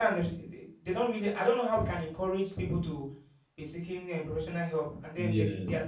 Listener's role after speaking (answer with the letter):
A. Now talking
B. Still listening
B